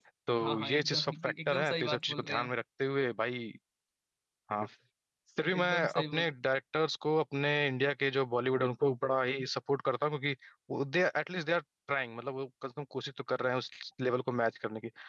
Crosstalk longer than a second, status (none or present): present